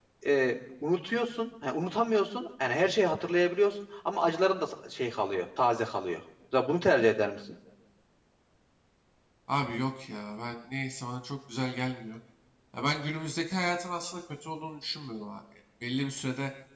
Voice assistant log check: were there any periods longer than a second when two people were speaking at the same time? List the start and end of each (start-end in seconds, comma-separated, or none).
none